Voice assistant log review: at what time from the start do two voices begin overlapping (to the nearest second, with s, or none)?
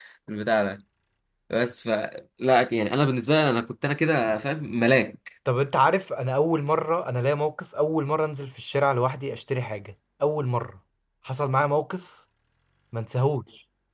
none